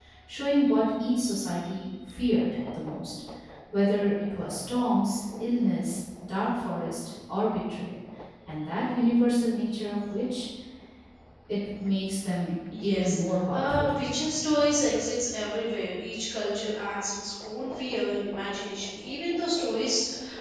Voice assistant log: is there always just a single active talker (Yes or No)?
No